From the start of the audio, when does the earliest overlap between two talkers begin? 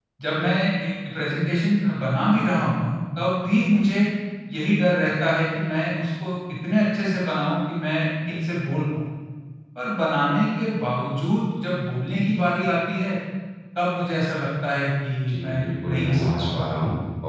15 s

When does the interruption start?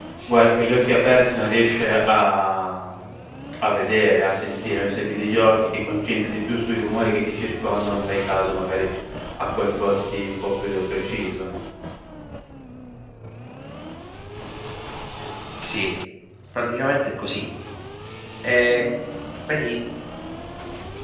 none

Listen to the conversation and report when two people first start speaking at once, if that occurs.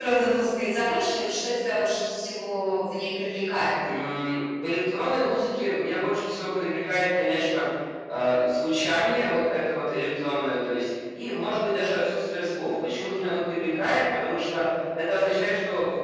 none

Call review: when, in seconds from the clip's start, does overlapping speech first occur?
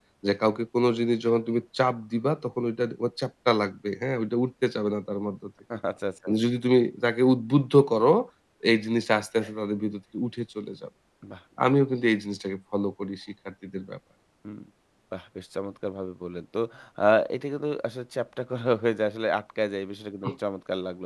none

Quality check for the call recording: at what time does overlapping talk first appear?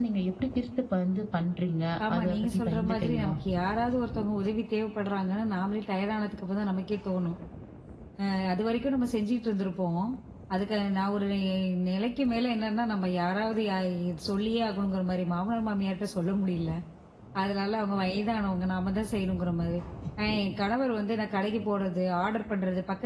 2 s

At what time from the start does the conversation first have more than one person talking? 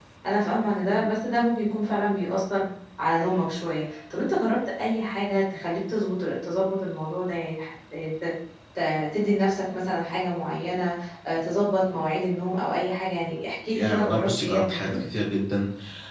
14 s

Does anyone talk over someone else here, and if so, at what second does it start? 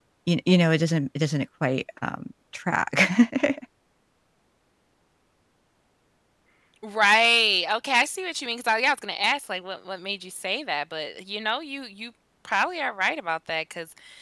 none

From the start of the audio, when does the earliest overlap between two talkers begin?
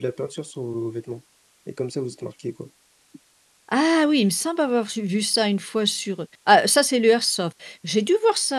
none

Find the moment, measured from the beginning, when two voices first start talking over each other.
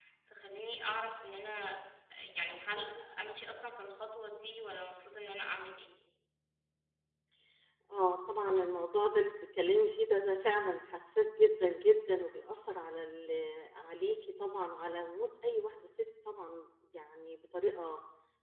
none

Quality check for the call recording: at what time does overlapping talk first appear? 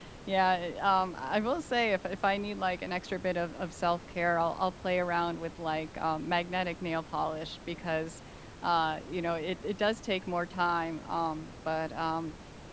none

